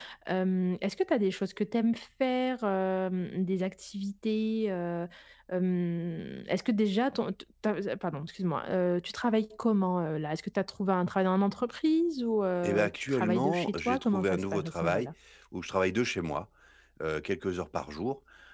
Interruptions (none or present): present